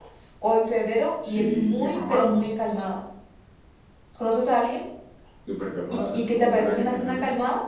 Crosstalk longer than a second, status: present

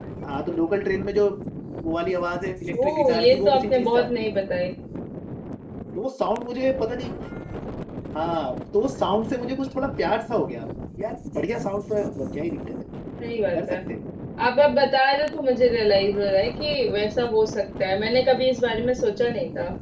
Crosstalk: present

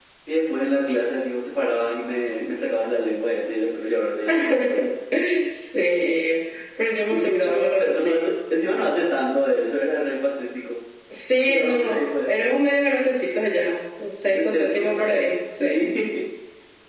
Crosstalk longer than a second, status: present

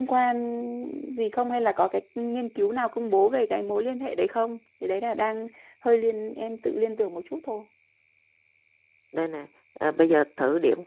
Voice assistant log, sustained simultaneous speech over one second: none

